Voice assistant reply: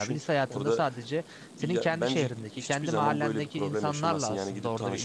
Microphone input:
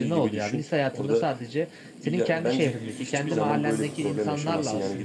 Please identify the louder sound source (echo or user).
echo